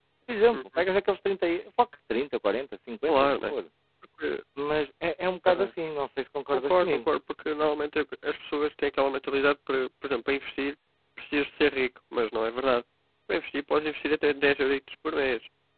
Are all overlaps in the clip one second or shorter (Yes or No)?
Yes